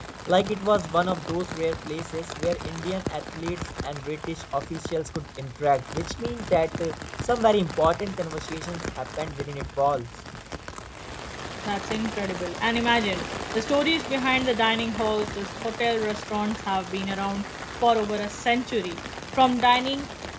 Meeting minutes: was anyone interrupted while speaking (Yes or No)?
No